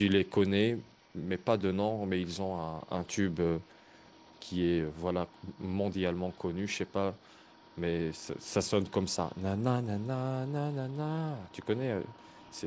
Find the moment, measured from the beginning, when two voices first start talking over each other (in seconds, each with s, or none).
none